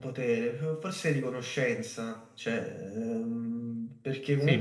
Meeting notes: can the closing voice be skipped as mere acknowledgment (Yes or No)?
No